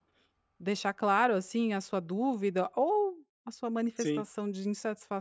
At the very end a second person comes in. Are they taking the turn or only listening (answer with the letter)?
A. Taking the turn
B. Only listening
B